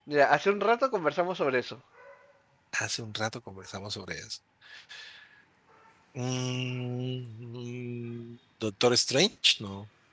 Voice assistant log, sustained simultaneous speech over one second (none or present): none